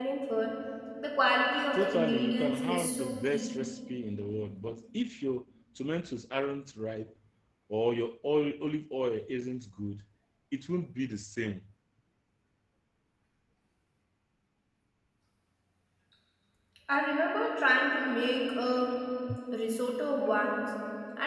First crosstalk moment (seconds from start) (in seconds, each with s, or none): 1.7 s